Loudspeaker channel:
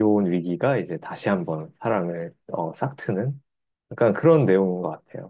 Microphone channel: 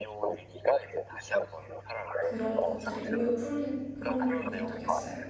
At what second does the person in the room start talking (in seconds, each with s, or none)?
2.2 s